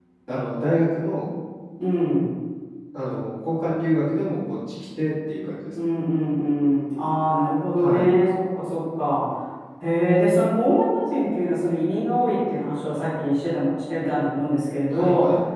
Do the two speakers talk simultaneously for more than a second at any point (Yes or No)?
No